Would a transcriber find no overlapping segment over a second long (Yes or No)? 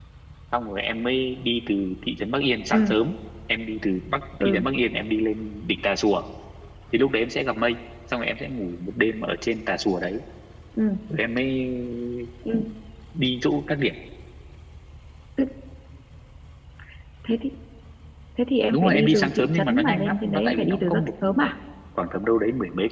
No